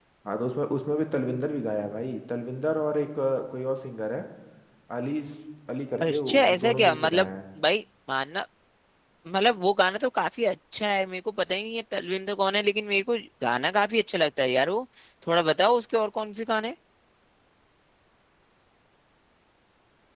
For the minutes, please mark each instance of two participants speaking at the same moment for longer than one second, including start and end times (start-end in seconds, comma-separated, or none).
6.0-7.3